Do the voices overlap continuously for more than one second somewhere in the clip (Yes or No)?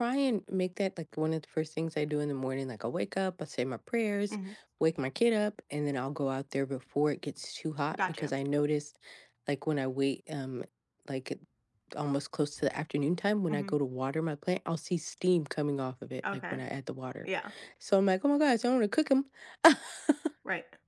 No